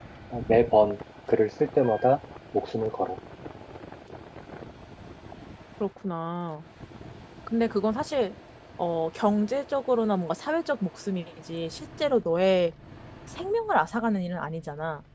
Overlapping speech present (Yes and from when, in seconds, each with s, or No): No